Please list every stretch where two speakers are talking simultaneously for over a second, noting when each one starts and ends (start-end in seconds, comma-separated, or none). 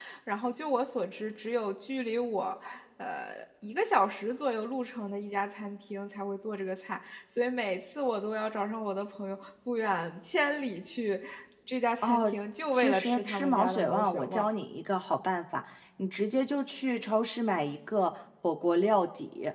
12.7-14.5